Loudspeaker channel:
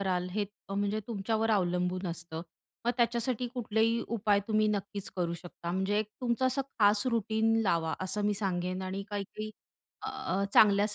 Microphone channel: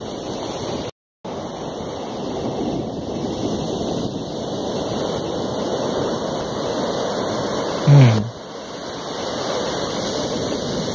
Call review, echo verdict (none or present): none